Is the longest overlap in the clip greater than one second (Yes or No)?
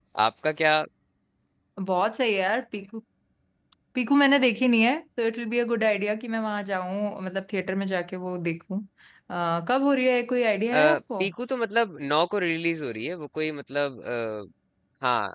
No